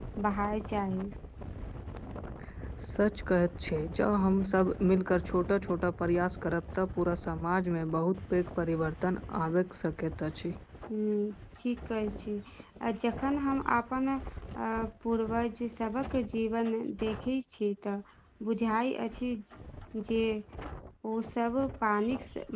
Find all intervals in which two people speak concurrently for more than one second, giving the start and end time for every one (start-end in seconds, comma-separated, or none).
none